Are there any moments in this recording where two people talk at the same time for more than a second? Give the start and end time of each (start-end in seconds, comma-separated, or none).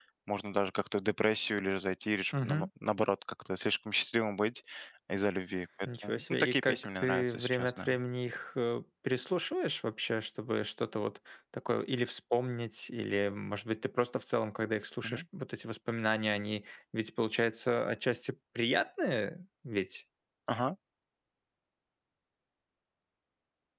6.0-7.9